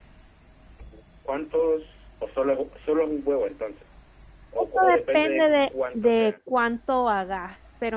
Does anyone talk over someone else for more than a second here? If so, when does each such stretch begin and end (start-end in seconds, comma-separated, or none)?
4.6-6.4